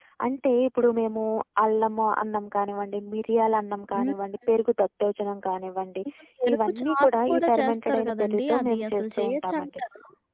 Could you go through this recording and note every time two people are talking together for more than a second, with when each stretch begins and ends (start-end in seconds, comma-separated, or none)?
6.5-9.8